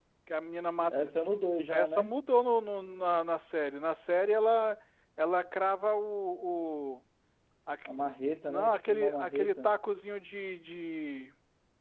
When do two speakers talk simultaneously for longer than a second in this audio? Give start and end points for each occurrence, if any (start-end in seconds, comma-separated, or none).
8.5-9.7